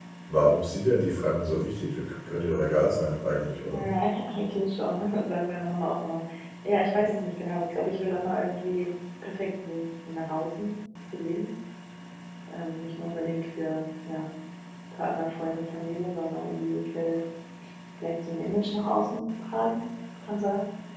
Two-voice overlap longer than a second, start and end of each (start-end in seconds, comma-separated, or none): none